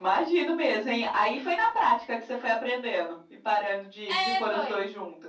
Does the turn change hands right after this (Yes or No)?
Yes